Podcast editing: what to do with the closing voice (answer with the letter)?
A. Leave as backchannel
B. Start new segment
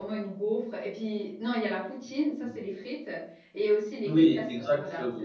B